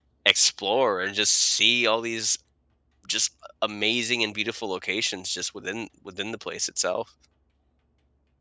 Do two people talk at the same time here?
No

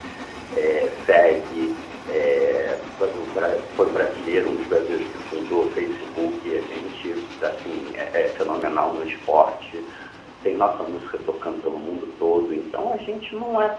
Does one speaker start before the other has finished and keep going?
No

